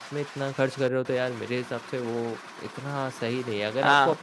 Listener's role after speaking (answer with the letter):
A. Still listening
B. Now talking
A